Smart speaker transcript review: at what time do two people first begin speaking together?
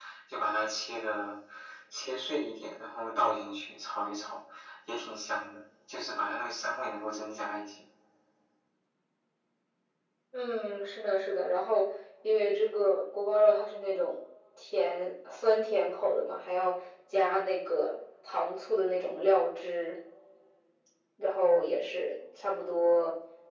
none

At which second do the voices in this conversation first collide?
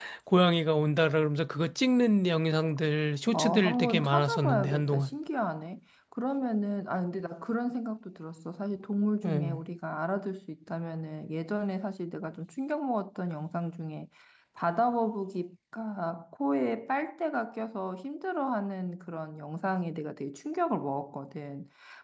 3.3 s

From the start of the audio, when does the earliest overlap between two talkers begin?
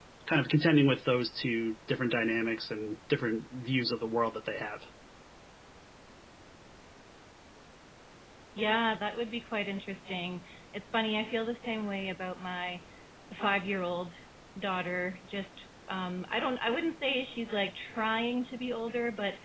none

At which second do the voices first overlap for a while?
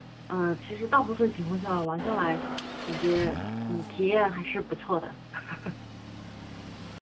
none

